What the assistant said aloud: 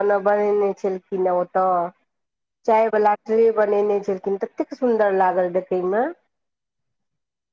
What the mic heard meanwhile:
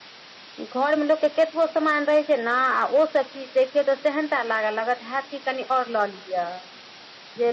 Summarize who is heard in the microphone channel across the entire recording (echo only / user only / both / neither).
user only